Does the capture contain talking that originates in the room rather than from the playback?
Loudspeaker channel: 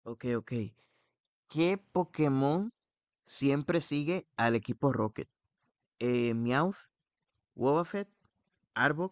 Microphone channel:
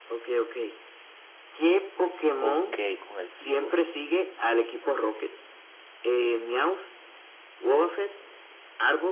Yes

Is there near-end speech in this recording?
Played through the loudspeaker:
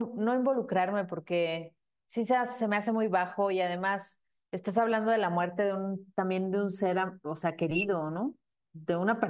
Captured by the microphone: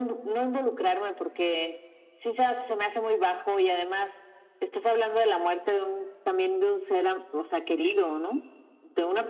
No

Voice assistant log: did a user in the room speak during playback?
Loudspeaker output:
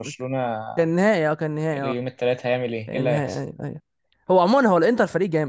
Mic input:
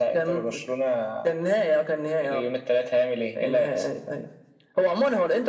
No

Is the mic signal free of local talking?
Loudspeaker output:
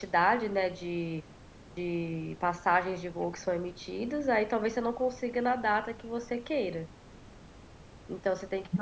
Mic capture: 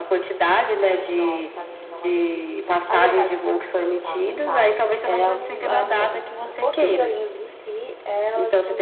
No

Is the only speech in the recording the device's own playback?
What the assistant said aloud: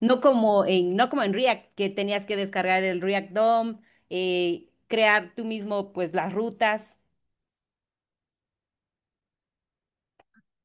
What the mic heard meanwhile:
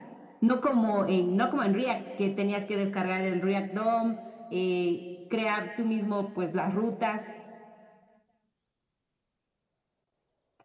Yes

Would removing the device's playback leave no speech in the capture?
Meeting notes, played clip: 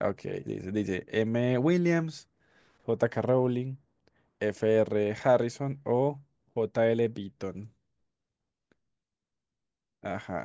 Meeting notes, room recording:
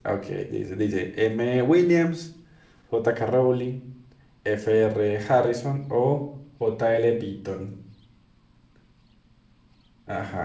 Yes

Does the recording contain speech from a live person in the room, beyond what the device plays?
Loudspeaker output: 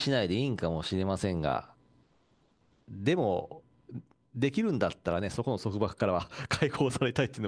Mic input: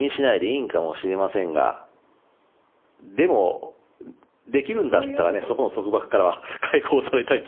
Yes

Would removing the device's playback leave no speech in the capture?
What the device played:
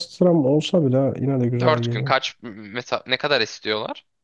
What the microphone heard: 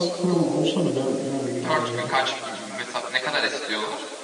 Yes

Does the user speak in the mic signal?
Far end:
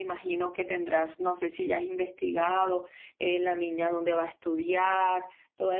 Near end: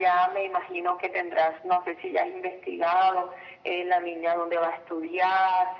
No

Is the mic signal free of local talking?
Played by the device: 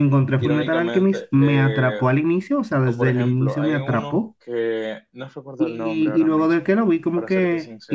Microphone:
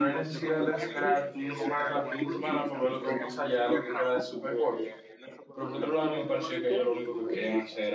No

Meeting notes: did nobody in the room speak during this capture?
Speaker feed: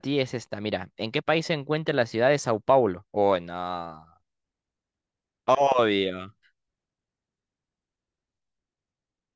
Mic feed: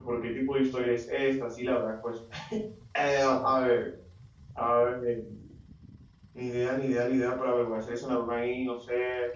No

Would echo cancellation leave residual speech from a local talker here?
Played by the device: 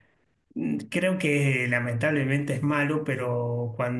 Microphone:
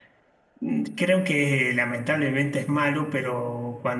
No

